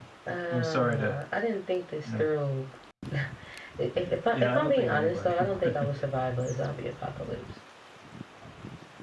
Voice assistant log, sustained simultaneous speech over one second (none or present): present